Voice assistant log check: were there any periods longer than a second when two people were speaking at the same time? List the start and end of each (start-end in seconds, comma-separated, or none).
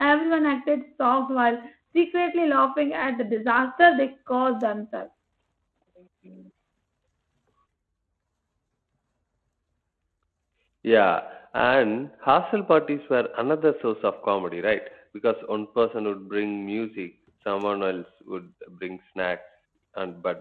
none